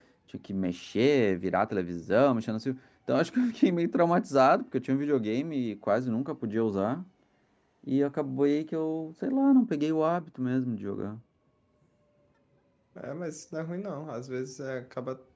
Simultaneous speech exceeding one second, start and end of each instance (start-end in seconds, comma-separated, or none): none